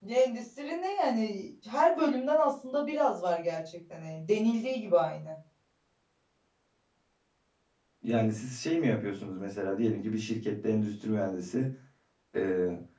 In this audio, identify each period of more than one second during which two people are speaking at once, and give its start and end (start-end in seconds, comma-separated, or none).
none